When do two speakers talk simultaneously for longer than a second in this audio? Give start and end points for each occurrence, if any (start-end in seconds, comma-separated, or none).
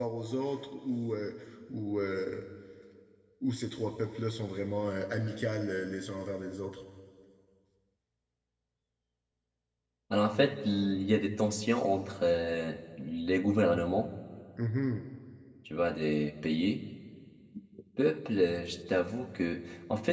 none